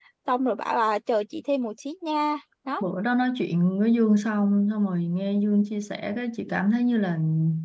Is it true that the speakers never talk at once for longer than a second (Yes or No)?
Yes